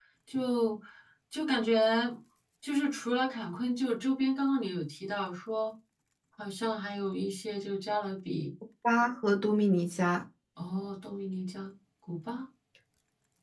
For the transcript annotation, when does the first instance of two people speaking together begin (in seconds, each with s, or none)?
none